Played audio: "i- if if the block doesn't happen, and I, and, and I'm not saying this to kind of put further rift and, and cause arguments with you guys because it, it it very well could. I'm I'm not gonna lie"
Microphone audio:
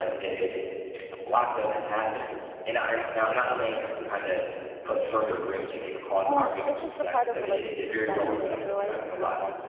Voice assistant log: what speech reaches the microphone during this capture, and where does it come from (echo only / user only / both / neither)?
both